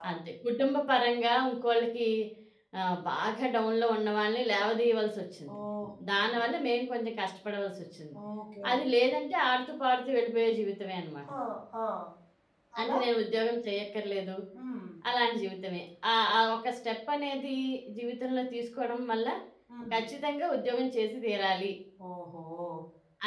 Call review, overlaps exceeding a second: none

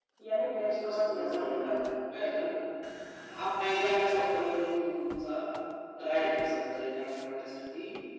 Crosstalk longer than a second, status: present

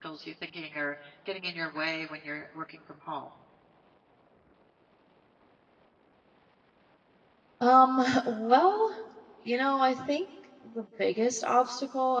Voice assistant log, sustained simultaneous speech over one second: none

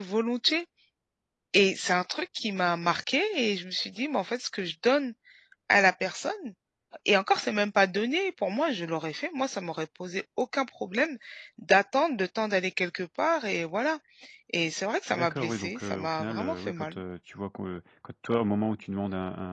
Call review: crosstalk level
present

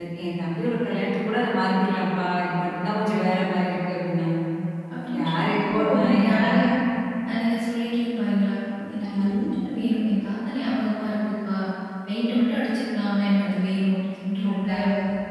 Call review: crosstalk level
present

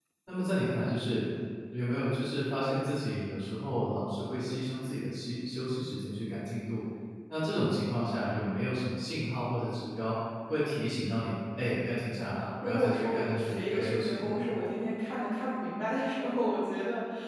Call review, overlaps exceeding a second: present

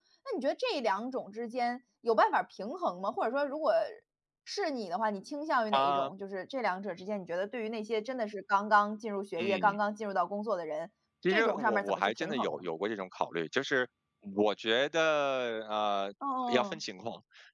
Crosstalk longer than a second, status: present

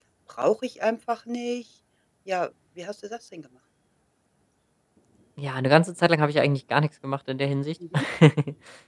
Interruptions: none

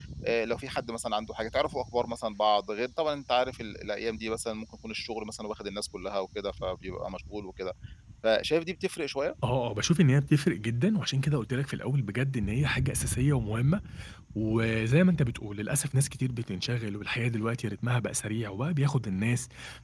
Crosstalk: none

